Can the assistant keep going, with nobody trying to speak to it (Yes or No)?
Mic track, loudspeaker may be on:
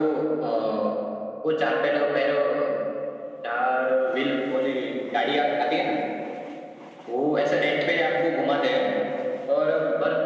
Yes